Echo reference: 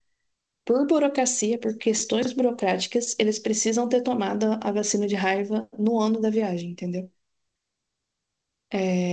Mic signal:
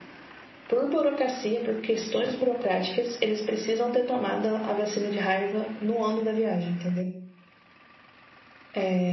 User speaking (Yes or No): No